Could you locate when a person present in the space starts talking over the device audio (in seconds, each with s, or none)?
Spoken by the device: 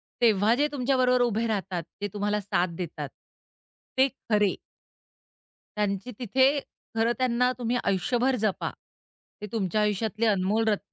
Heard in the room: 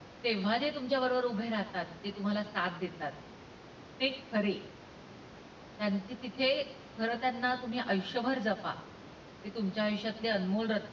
none